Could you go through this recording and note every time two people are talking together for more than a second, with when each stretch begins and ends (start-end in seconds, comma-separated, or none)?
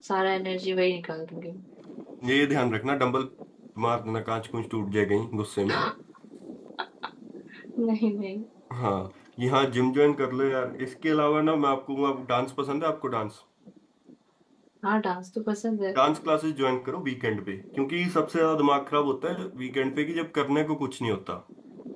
none